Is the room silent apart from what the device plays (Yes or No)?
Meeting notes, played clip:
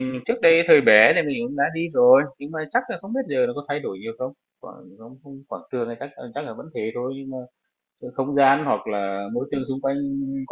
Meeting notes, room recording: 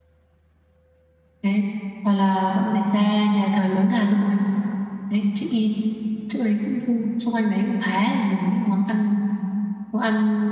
No